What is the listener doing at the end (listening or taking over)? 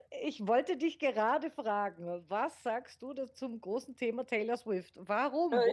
taking over